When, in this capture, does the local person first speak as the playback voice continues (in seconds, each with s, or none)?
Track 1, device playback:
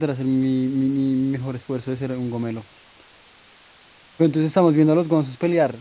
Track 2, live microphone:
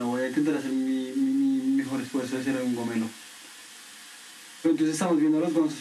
none